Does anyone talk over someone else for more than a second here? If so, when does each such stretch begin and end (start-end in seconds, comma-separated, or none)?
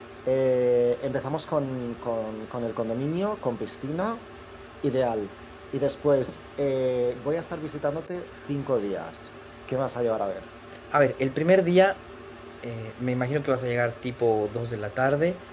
none